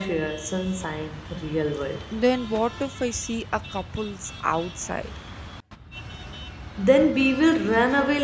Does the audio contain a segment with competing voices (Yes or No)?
No